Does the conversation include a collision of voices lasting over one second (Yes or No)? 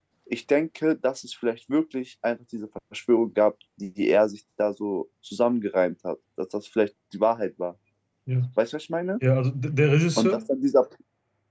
No